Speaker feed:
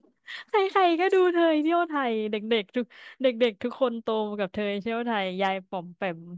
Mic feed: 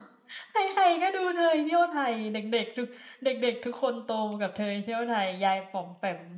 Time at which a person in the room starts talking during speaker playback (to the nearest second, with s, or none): none